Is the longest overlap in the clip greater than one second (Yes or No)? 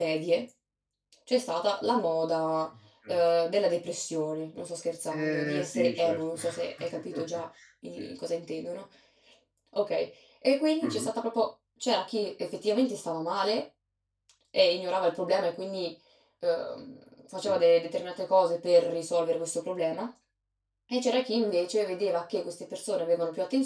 Yes